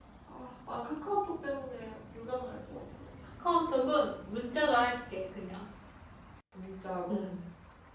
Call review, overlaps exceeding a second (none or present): none